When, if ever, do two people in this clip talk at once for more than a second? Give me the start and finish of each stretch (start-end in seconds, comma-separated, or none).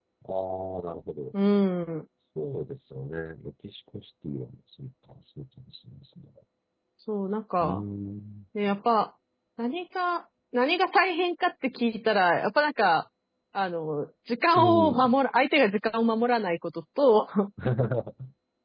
none